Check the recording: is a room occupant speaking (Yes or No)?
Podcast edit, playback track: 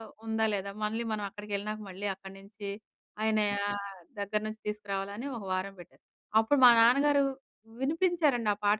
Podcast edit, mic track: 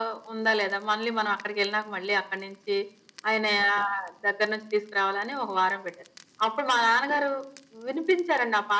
No